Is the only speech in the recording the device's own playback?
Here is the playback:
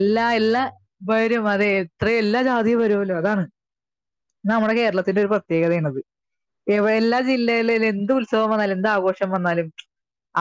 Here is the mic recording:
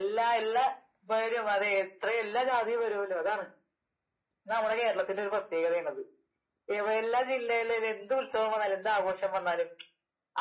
Yes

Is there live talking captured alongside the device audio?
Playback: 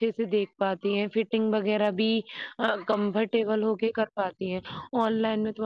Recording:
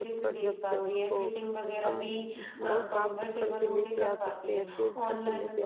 Yes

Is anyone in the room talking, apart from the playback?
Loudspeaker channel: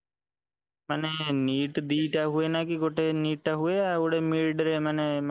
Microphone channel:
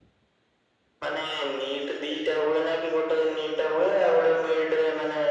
No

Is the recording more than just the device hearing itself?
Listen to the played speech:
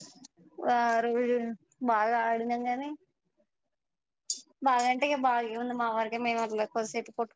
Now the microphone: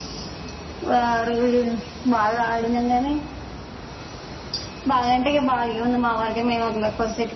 No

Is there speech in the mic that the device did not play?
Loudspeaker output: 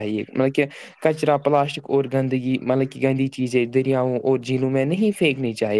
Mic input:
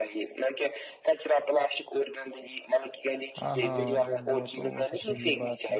Yes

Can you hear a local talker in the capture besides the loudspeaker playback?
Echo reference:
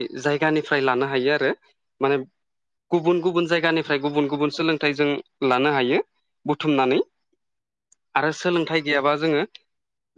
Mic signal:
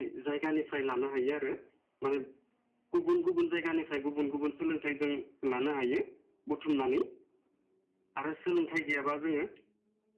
No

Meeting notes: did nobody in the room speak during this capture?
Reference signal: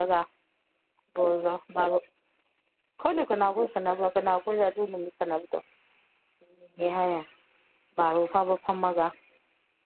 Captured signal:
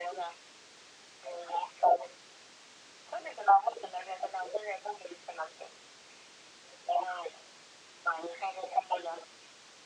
Yes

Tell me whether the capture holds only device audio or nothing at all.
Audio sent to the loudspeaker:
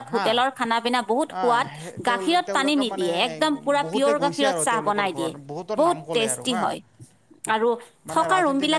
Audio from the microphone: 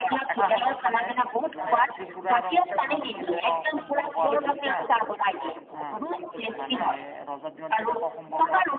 No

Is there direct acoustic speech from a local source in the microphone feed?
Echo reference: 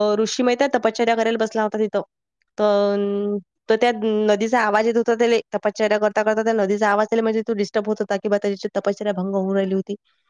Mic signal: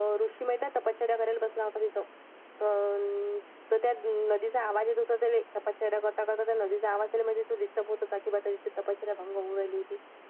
No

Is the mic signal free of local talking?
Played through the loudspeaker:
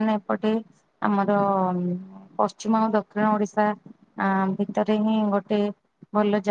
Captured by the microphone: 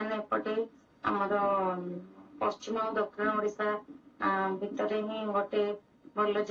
Yes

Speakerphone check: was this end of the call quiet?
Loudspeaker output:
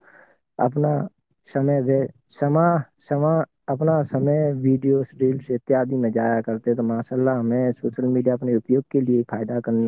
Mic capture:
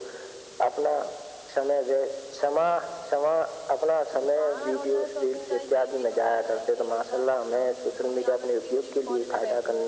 No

